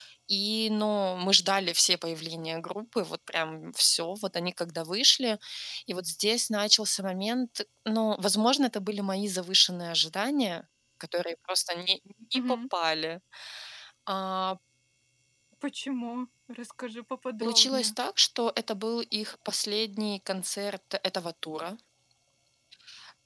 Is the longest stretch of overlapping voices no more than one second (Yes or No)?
Yes